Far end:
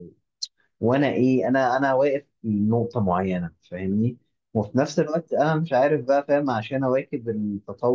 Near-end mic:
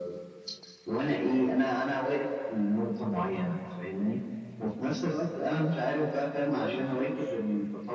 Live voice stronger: No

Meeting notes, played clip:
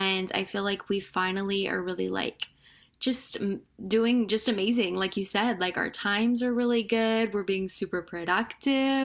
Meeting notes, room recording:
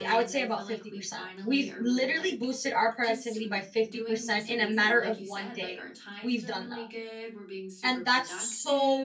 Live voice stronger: Yes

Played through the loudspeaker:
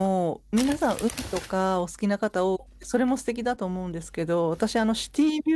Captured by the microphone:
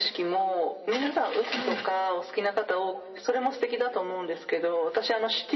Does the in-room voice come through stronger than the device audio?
No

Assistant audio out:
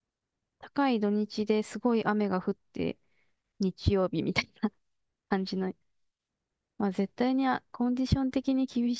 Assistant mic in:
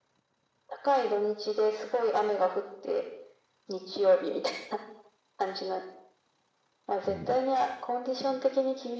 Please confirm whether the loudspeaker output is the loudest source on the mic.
Yes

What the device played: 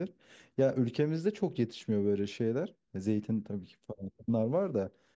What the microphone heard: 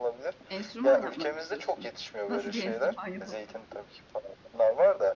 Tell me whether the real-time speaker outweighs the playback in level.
No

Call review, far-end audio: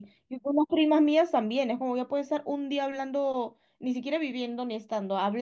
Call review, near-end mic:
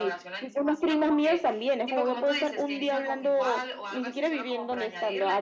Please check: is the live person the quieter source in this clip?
Yes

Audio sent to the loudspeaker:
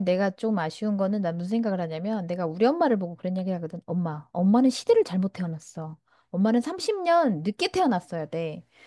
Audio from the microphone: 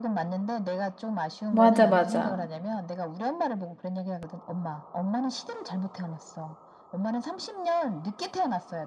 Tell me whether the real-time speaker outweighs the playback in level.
Yes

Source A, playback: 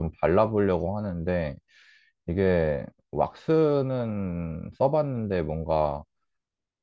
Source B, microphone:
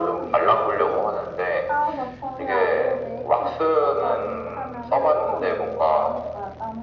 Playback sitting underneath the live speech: No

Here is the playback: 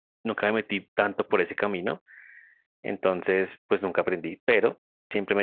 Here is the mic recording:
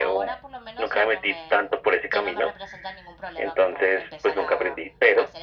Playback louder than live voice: Yes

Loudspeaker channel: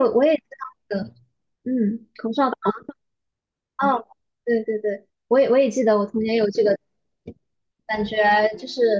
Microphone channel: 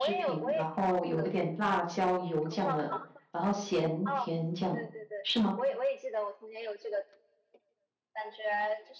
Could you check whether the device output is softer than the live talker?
Yes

